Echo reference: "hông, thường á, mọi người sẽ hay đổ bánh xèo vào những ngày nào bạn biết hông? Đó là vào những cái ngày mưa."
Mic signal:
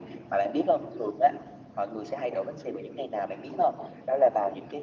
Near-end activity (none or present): none